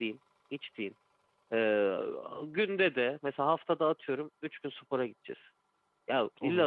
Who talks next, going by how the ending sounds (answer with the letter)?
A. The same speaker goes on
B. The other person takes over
A